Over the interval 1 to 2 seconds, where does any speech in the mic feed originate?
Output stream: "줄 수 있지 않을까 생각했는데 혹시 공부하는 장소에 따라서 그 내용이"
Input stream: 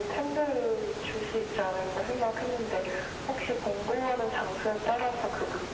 echo only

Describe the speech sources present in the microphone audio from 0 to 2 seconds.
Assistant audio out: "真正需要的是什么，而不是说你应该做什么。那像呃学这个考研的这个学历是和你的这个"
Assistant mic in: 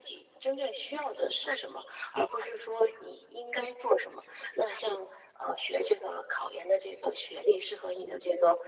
echo only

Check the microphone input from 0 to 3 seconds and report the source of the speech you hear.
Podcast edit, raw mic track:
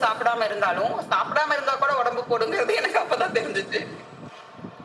echo only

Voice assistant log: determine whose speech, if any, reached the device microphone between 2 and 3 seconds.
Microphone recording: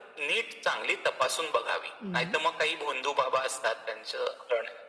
both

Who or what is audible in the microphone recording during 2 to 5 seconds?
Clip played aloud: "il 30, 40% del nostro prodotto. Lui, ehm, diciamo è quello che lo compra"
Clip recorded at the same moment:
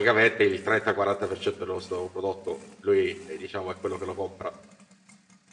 echo only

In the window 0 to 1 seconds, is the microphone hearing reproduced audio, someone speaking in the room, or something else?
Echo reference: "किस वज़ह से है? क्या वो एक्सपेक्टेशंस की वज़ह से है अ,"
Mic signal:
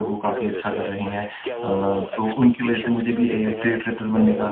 both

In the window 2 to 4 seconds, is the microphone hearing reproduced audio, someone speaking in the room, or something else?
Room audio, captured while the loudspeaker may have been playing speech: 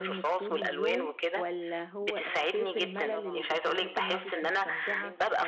both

